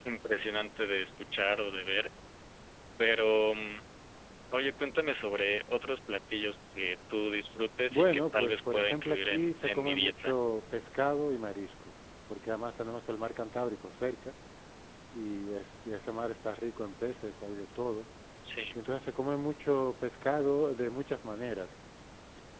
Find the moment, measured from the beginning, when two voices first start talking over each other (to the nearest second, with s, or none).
8 s